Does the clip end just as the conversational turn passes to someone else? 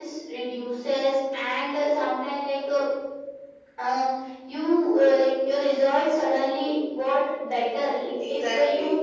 No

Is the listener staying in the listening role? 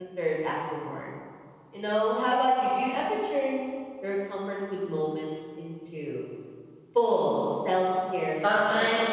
No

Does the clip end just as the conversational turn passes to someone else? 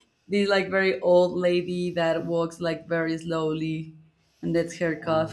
Yes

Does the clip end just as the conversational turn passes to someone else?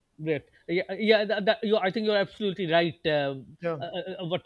No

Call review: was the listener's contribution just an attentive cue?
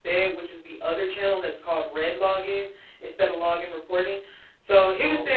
Yes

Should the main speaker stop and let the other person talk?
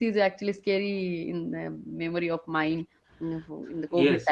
Yes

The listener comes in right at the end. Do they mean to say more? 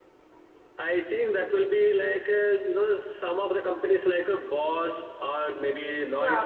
Yes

